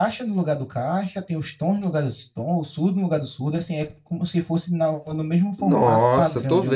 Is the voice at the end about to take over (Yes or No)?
Yes